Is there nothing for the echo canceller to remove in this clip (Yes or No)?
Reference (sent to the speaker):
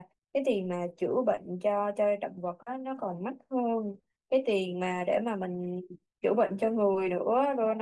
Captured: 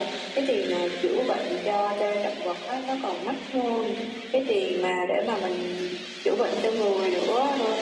No